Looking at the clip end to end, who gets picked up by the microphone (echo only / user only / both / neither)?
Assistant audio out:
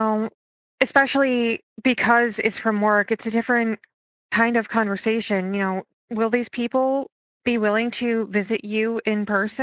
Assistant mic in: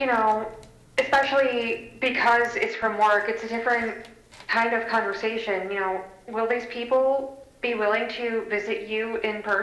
echo only